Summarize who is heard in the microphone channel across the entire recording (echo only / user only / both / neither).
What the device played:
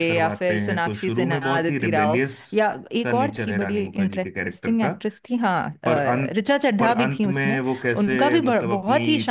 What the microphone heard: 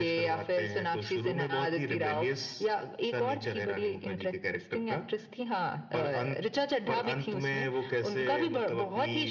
echo only